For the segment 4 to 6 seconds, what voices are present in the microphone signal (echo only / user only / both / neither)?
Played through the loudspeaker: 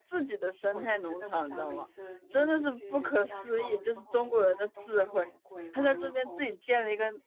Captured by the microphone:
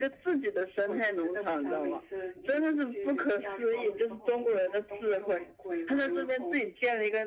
echo only